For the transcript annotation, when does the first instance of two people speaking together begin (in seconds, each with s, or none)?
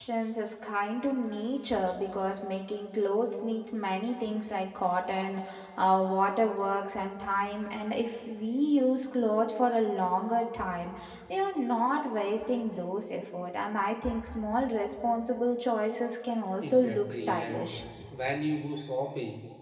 16.6 s